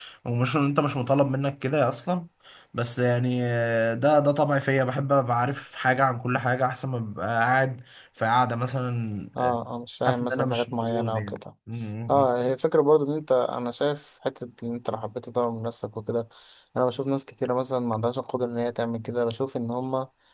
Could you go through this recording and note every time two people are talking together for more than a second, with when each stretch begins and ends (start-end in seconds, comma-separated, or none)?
10.0-11.4